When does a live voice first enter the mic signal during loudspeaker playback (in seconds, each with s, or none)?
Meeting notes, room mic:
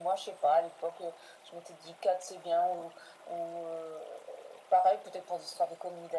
none